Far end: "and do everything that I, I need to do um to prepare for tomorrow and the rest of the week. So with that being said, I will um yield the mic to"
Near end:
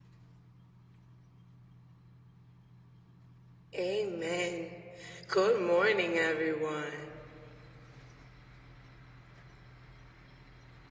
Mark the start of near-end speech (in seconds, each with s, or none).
3.8 s